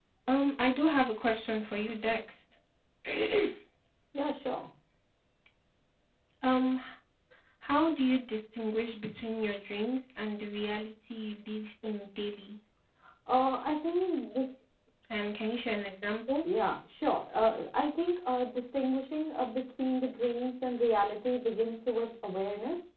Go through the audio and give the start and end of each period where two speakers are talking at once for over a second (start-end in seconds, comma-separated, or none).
none